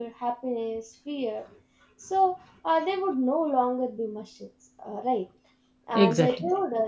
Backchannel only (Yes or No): Yes